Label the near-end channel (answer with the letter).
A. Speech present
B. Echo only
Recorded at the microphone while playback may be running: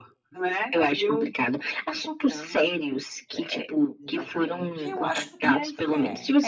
A